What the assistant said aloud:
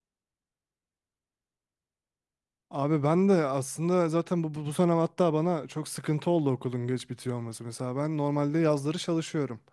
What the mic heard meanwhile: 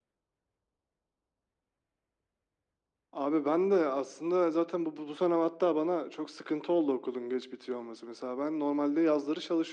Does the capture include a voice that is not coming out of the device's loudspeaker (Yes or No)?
No